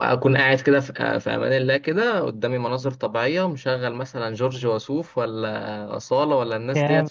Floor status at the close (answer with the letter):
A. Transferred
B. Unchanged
B